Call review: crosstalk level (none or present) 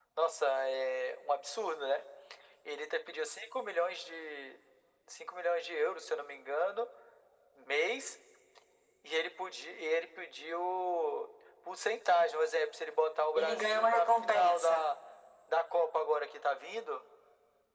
present